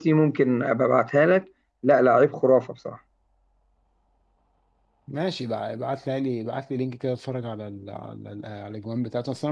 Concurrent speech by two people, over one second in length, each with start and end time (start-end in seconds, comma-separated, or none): none